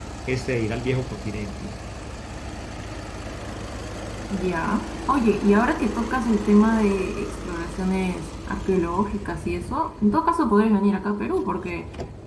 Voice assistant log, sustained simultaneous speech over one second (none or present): none